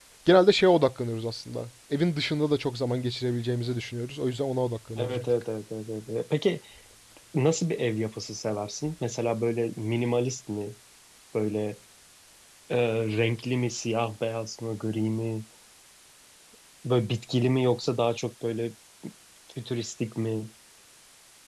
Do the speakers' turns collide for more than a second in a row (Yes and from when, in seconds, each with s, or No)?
No